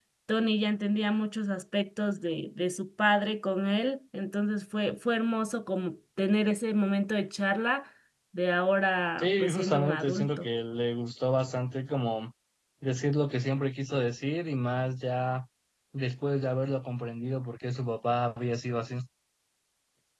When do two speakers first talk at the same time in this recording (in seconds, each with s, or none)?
9.2 s